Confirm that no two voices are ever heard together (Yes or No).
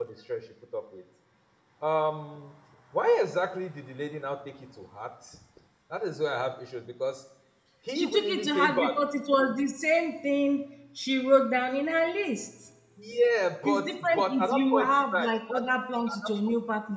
No